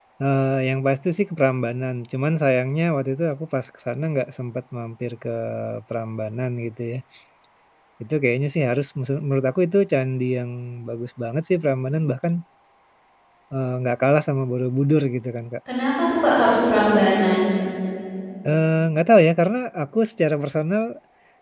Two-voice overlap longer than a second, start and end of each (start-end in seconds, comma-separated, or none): none